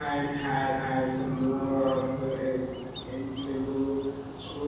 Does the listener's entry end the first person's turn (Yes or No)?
No